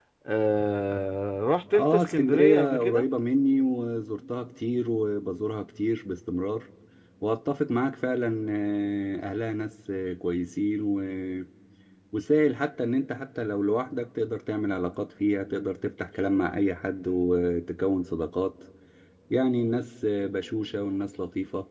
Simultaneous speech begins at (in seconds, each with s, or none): 1.7 s